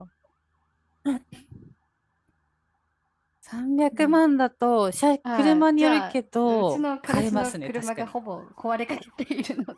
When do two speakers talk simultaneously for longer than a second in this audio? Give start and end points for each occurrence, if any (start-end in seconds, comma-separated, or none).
5.3-8.1